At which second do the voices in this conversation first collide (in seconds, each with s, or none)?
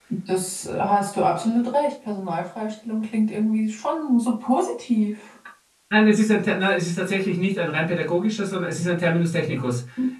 none